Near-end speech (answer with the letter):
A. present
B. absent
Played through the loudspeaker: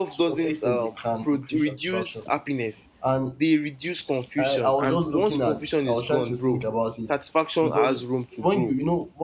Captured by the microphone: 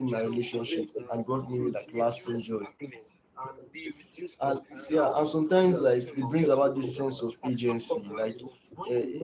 A